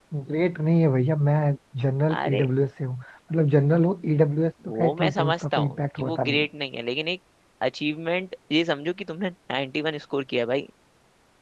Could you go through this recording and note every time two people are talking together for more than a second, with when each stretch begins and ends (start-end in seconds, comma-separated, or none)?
4.8-6.5